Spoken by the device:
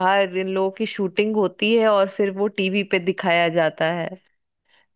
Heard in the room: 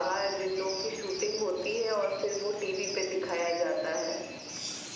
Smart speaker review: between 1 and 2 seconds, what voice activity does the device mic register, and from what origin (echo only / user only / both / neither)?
echo only